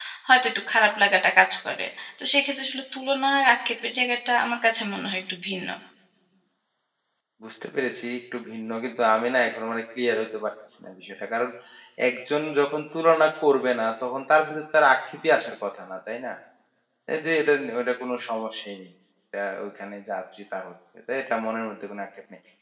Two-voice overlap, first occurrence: none

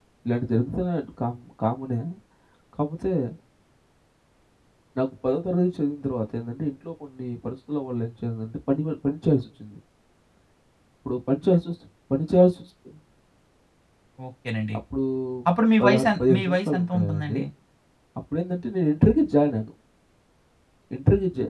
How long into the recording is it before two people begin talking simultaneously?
15.8 s

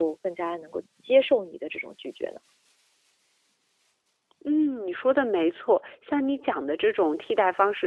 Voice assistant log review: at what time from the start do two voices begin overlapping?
none

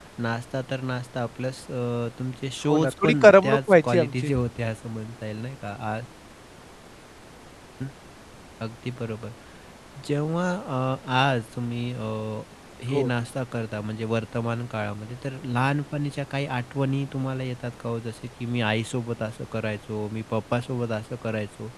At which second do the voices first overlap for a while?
2.7 s

